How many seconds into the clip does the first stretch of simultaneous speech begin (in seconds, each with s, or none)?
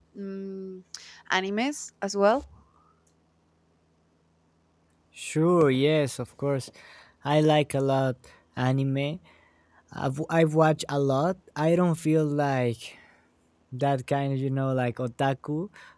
none